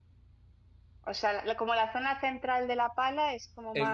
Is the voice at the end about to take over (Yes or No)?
Yes